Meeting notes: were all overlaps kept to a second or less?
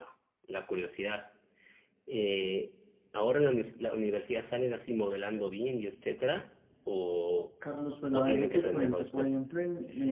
No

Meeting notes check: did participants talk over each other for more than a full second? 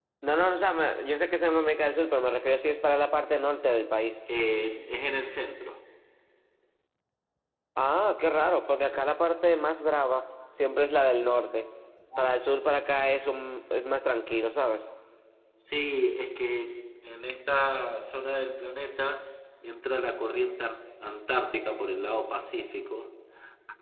No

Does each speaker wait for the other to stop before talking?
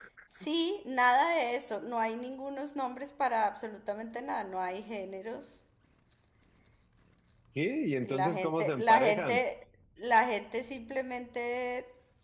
No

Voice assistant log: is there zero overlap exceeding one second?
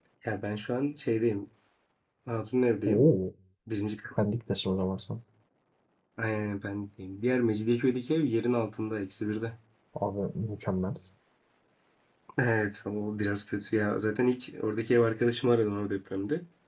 Yes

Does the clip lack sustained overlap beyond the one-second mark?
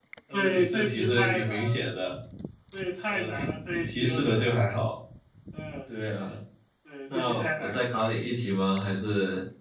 No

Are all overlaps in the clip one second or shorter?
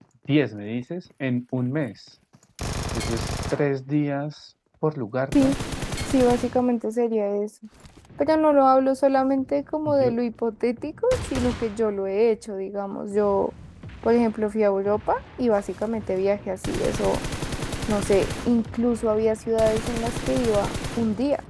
Yes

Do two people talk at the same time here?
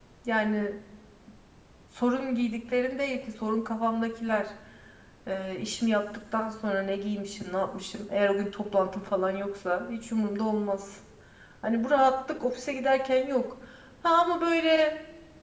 No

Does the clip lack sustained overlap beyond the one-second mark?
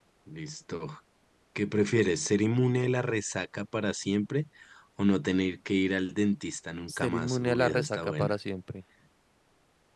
No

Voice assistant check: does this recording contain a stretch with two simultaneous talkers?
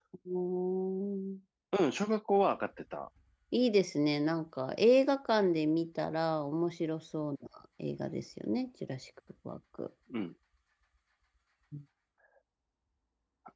No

